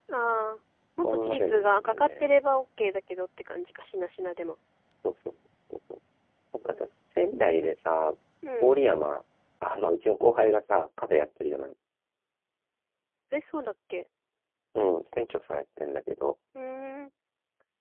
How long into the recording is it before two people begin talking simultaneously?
1.0 s

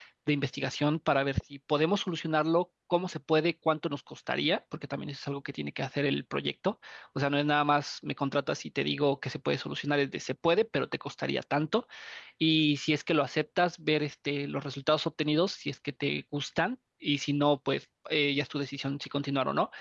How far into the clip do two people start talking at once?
none

